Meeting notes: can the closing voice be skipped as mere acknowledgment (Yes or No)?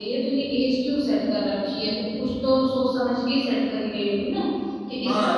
No